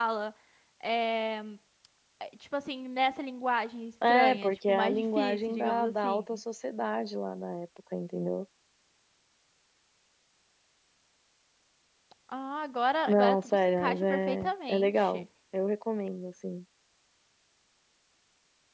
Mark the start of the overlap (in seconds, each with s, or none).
4.1 s